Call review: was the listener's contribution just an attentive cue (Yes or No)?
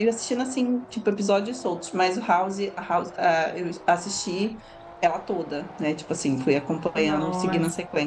No